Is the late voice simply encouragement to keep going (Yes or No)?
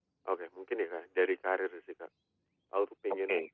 Yes